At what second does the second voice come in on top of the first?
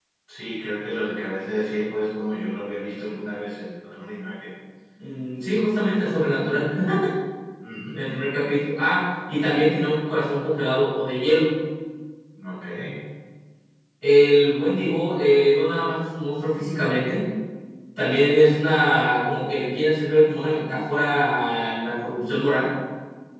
none

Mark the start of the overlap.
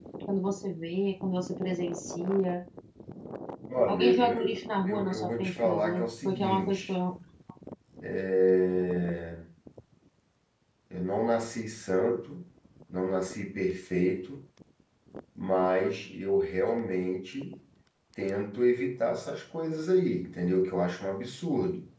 4 s

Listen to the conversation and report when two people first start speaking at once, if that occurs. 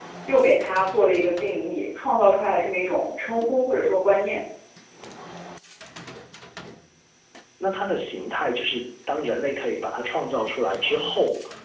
none

